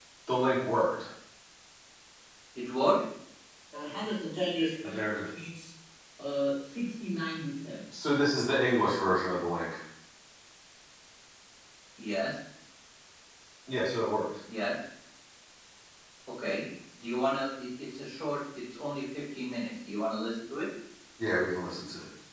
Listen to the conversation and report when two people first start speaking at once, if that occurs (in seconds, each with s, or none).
none